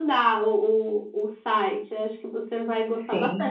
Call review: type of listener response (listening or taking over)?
listening